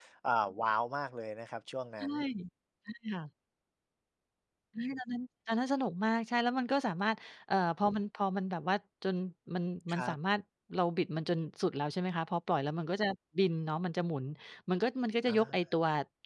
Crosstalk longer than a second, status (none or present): none